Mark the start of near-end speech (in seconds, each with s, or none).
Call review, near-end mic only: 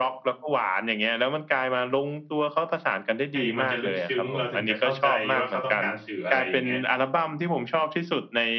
3.3 s